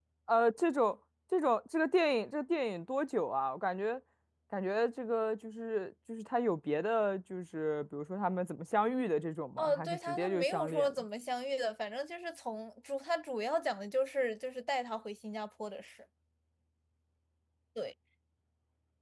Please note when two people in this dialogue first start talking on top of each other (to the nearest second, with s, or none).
10 s